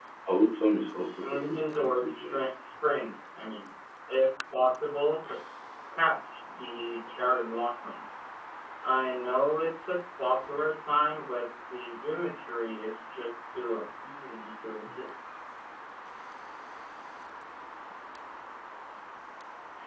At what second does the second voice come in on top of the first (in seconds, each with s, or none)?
1.2 s